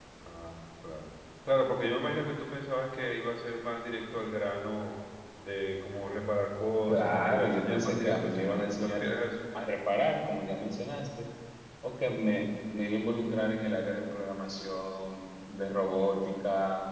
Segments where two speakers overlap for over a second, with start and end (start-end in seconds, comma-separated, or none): 6.9-9.0